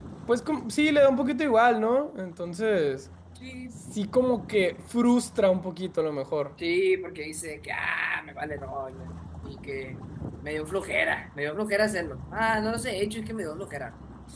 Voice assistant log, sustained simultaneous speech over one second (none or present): none